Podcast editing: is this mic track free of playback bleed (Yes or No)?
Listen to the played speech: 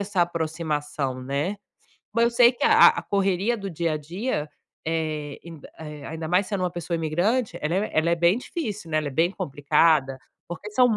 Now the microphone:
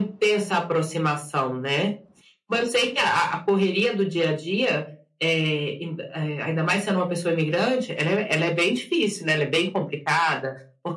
No